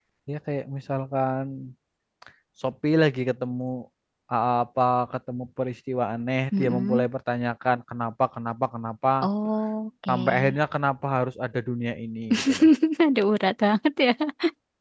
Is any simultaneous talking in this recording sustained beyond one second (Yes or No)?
No